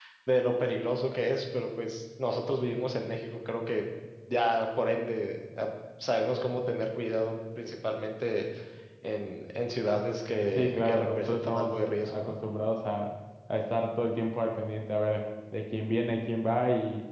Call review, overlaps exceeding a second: present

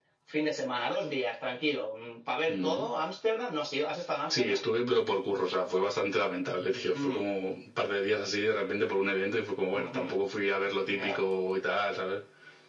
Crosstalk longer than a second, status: none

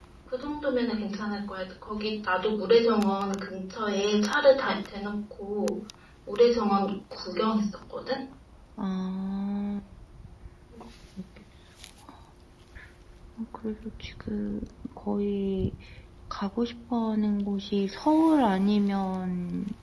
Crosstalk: none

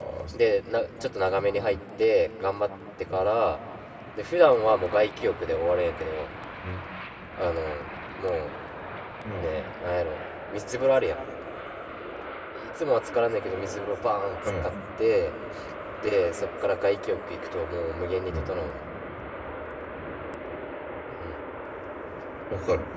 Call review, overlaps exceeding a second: none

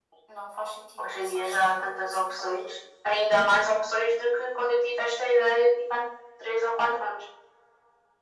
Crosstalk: present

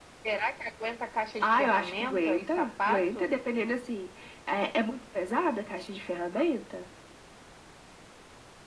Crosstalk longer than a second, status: present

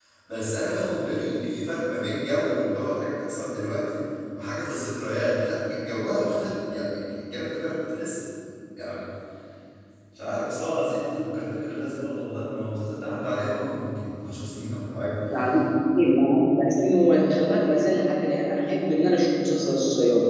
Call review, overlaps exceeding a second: none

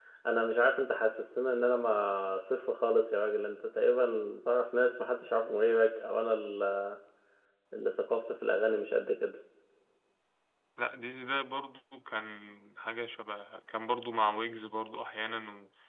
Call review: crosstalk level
none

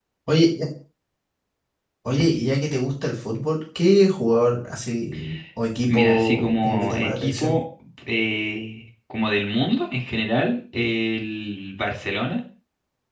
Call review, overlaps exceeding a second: present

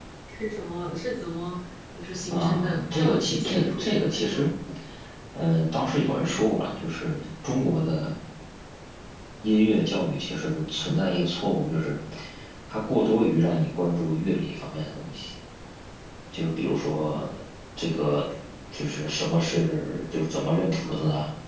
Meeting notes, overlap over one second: present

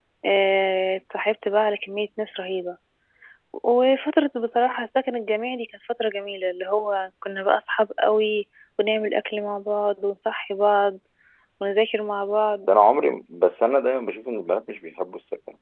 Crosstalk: none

